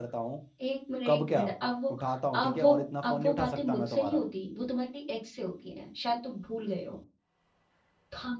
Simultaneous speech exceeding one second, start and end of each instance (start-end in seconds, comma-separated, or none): 2.4-4.2